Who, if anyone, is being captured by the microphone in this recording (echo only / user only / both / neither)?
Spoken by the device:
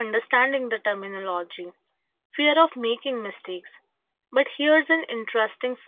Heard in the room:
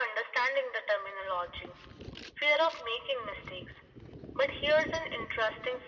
echo only